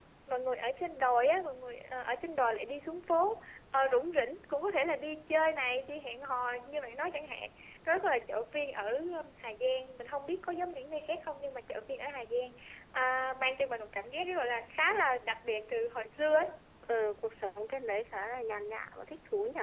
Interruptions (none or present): none